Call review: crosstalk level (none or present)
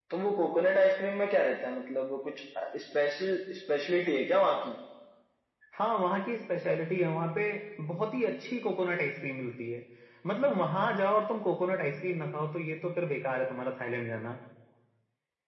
none